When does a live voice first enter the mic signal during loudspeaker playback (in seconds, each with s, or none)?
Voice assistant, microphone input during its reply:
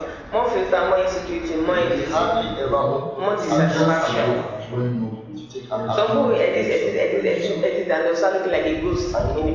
1.6 s